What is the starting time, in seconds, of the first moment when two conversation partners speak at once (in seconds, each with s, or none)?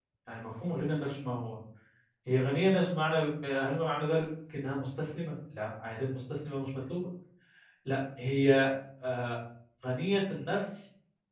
none